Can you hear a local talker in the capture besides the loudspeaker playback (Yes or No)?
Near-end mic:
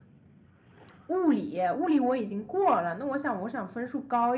No